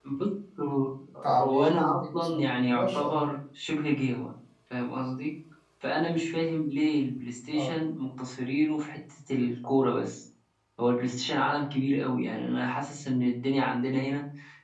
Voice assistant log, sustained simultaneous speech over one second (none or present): present